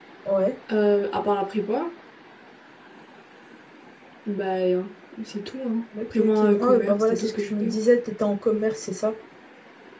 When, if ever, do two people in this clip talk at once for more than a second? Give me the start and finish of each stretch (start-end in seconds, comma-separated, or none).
6.2-7.7